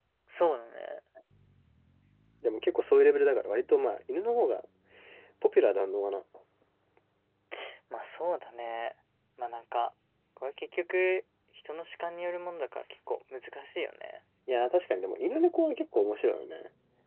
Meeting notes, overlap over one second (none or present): none